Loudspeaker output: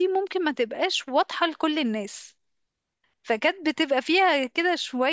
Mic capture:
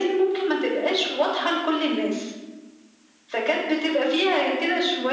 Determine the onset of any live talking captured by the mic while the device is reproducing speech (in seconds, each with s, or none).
none